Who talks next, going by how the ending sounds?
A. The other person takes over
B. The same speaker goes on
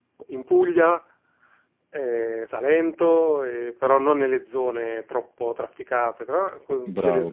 A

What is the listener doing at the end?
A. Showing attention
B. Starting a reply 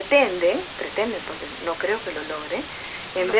A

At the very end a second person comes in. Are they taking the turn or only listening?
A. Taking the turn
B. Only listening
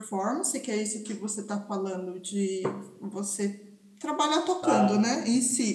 B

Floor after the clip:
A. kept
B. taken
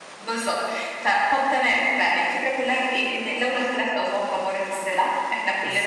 B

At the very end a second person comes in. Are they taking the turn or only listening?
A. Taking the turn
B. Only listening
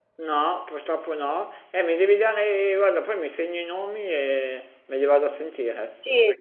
A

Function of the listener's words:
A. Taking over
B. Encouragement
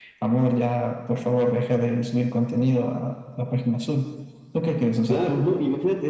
A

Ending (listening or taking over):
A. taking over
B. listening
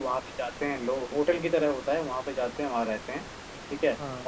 B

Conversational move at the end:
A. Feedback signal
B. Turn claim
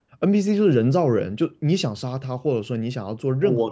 A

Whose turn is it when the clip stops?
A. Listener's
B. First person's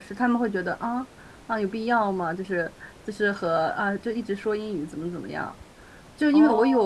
B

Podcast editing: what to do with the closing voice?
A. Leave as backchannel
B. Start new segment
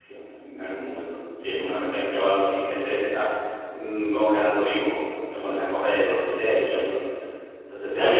B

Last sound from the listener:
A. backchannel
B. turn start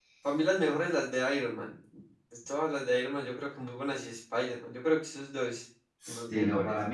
B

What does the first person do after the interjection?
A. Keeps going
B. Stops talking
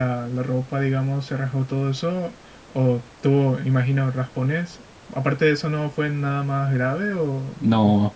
B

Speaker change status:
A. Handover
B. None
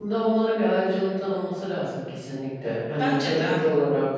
B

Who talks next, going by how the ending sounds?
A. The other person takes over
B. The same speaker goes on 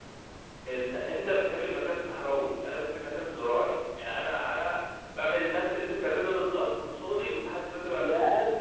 A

